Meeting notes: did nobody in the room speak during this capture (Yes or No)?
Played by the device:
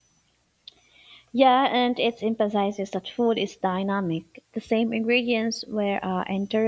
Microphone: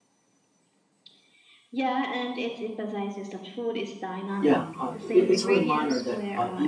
No